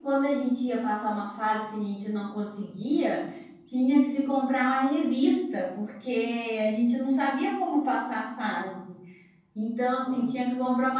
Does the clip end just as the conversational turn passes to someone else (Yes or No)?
No